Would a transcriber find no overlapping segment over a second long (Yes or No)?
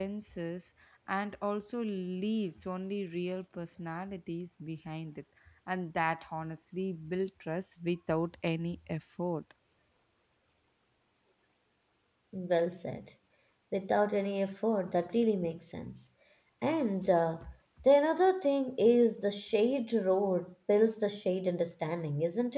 Yes